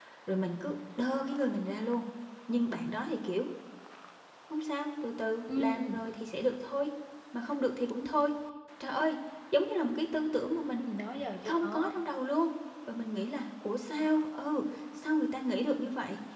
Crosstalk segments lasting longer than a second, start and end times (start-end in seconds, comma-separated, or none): none